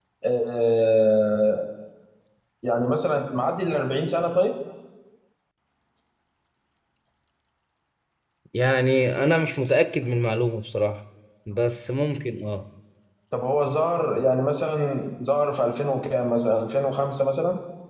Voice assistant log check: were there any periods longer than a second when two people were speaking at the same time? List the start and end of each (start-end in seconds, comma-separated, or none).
none